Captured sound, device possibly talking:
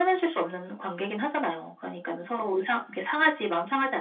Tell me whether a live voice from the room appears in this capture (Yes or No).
No